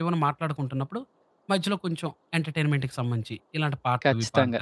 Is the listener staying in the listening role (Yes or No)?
No